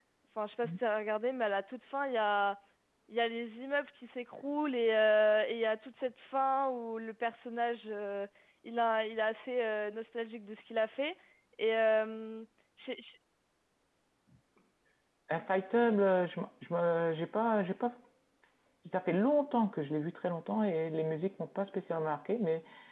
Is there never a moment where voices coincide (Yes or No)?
Yes